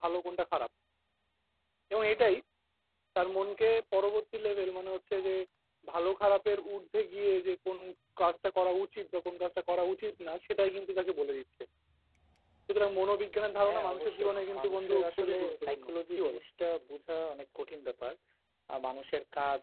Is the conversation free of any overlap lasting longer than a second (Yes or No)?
No